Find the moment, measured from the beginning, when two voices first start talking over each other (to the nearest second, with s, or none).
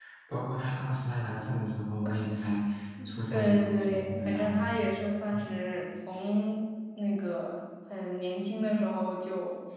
3 s